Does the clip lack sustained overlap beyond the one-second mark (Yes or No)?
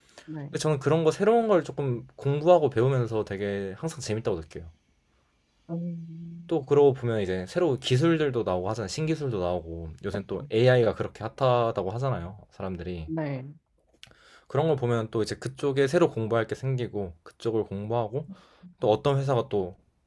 Yes